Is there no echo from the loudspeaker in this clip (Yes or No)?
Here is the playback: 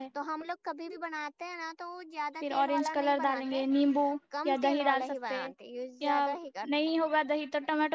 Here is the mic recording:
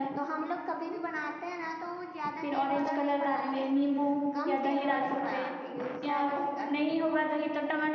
No